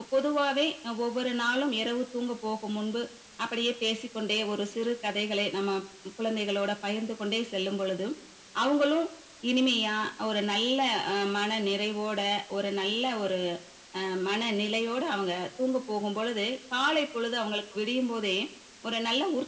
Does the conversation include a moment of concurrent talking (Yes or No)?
No